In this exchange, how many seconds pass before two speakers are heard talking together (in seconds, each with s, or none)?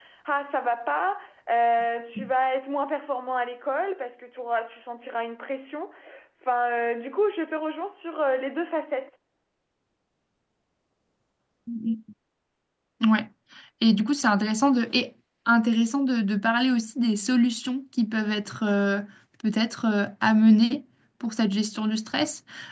none